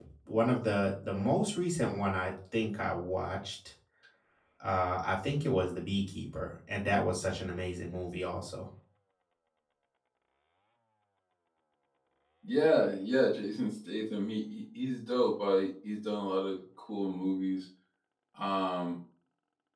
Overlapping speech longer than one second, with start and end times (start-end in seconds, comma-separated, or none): none